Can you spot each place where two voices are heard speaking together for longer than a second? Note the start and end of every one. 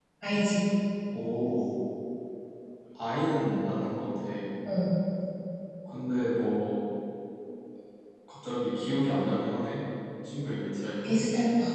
none

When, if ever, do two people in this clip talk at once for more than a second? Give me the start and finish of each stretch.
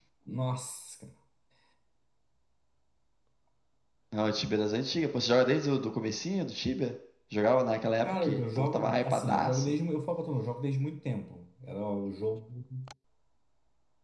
8.0-9.7

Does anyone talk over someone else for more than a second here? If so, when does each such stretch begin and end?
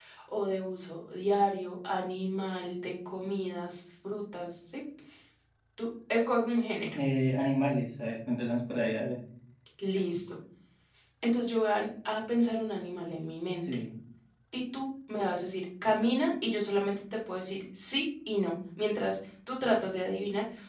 none

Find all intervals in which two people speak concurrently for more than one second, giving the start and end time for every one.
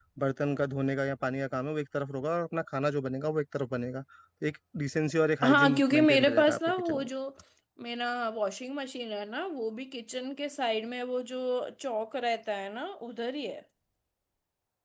5.5-7.1

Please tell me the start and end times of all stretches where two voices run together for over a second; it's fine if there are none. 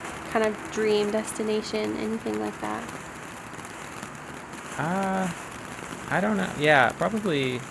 none

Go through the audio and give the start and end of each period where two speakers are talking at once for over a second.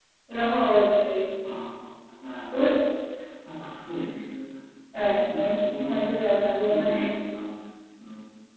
5.0-7.1

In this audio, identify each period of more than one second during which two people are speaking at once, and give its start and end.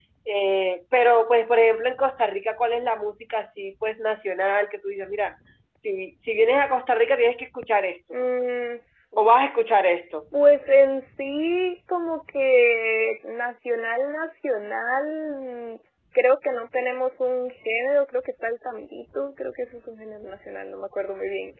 none

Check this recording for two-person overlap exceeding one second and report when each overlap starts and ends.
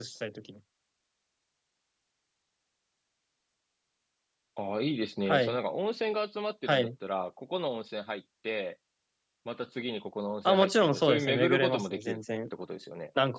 10.4-12.2

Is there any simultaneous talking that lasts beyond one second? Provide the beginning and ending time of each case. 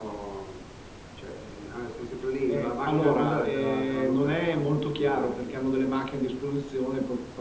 2.5-5.5

